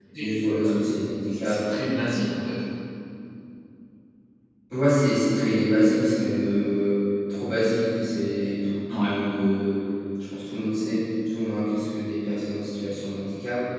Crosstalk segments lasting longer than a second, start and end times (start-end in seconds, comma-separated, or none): none